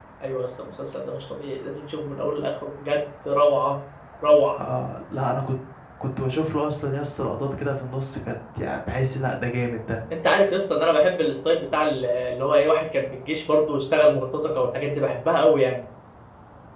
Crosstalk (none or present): none